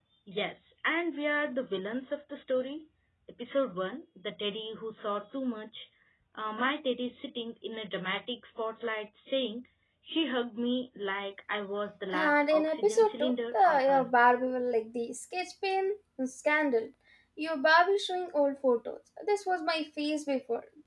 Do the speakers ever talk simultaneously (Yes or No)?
Yes